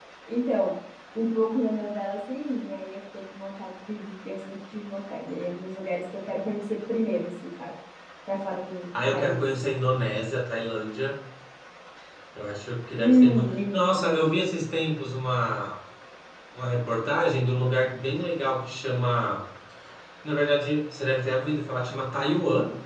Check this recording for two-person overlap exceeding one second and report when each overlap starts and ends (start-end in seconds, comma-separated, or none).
13.0-14.2